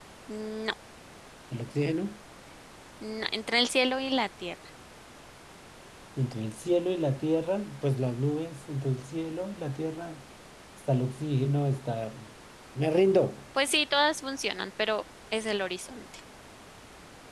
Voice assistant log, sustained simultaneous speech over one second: none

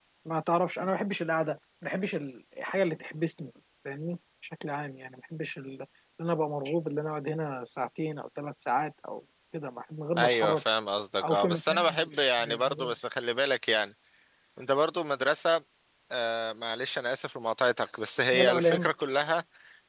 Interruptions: present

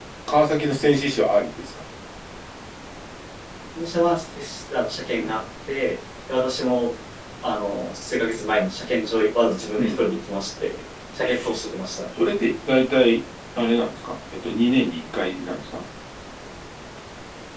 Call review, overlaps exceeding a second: none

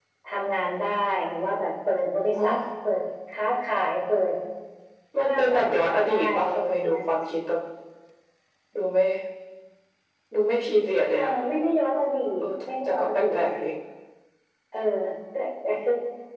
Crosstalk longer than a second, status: present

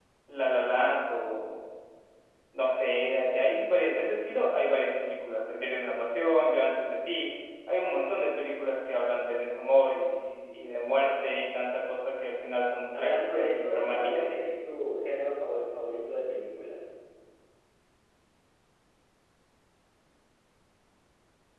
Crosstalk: present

